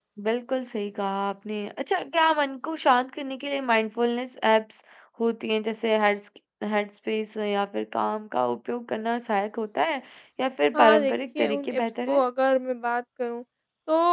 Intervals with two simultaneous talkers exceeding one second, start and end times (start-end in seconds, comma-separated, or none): 10.7-12.2